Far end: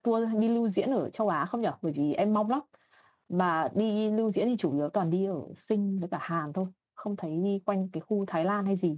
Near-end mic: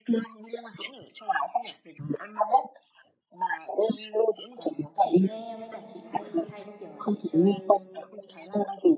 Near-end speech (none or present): present